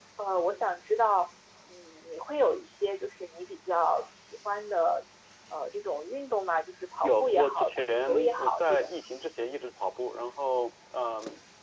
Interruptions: present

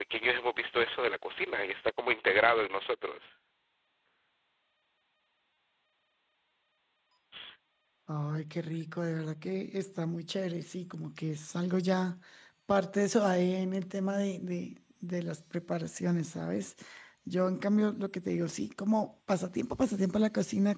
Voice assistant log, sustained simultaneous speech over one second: none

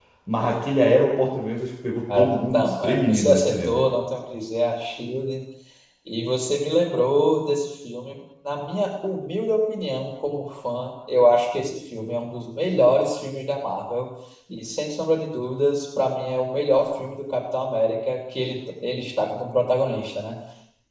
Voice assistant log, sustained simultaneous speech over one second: present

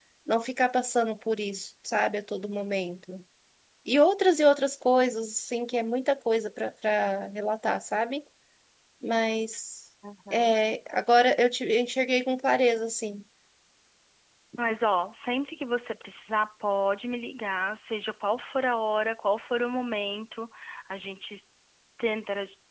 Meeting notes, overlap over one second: none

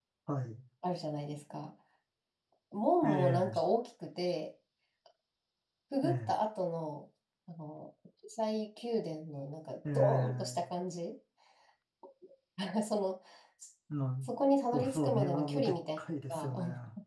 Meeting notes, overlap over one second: present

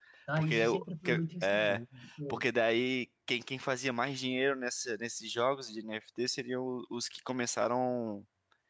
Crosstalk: present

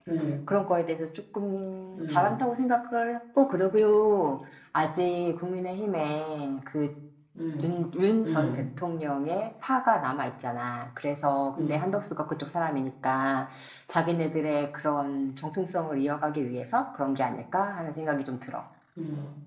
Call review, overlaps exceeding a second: none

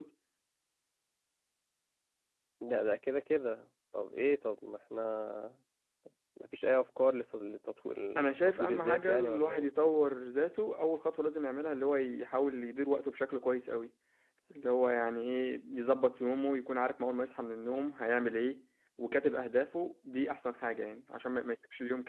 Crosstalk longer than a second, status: present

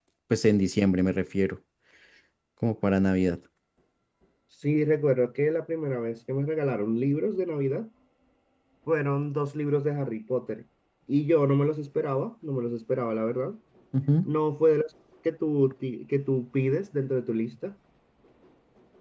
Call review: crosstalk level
none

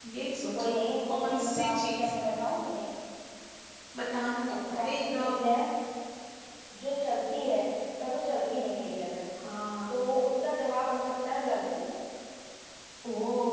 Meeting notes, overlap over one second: present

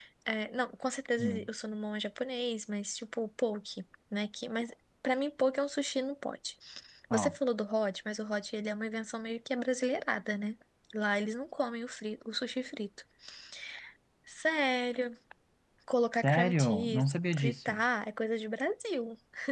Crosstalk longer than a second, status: present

